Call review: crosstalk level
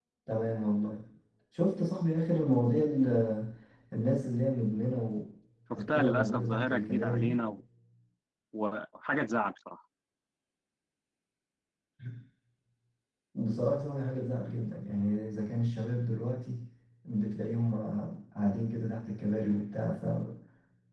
present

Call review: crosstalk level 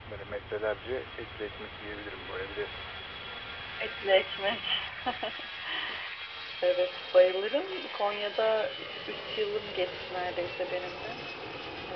none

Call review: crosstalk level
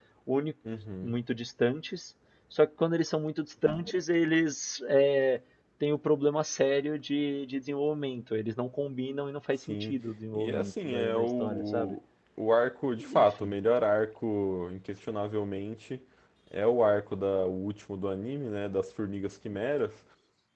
present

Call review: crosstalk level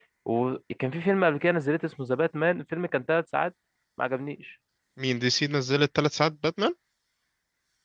none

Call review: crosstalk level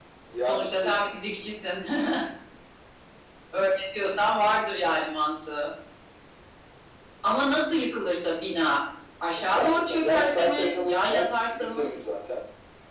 present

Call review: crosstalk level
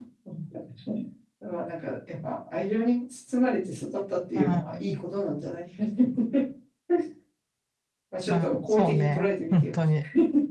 present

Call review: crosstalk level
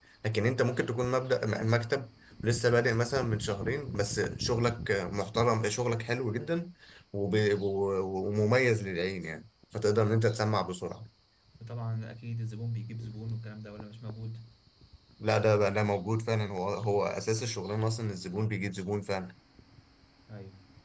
none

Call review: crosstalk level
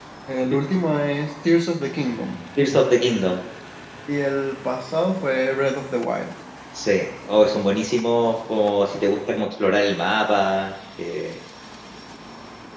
none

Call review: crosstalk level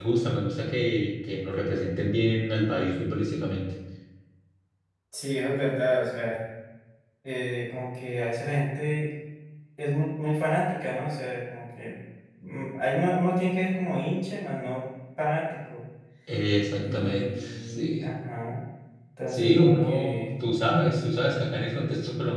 present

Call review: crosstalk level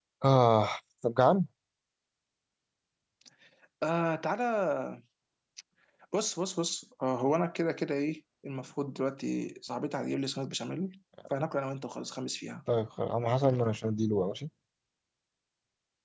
none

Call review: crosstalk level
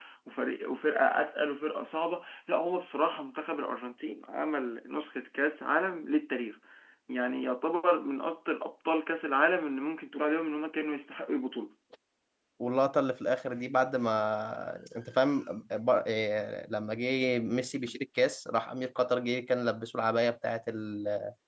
none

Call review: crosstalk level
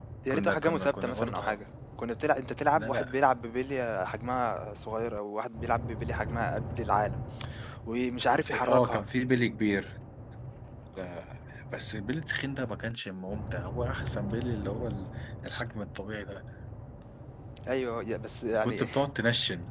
present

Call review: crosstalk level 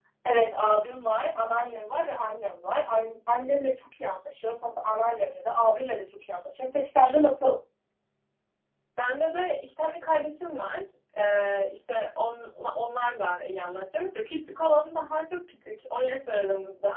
none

